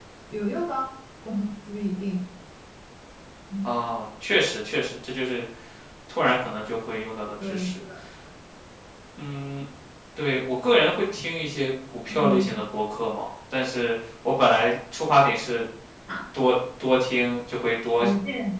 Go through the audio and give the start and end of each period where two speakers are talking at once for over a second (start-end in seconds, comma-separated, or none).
none